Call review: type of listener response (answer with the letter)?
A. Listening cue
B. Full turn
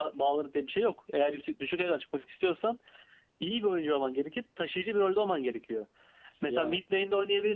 A